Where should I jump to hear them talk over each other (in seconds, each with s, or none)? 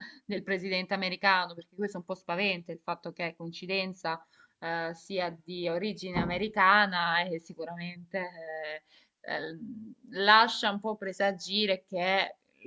none